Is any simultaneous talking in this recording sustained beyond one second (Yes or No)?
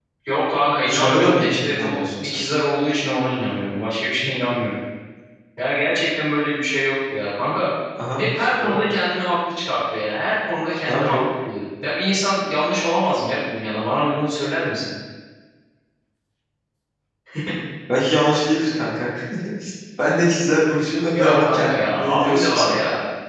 Yes